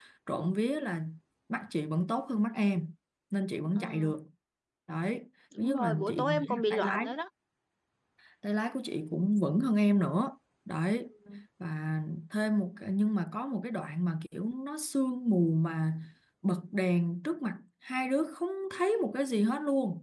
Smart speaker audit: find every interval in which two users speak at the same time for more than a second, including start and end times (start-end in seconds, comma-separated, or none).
5.6-7.1